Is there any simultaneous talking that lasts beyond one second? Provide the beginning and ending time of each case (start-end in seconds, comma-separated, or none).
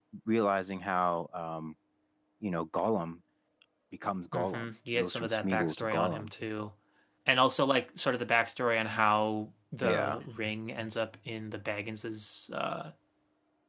4.3-6.3